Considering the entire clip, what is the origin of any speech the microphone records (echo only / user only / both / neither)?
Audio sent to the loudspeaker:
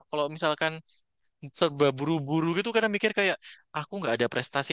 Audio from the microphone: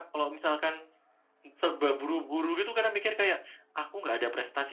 echo only